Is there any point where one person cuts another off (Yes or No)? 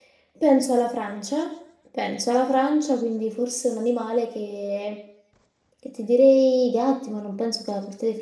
No